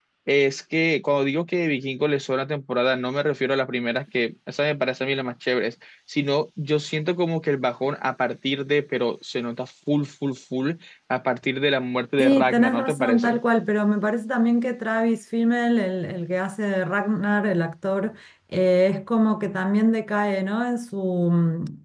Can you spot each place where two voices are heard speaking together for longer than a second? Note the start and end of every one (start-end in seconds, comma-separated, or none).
12.2-13.4